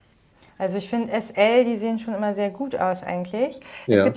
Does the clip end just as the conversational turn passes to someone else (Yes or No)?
No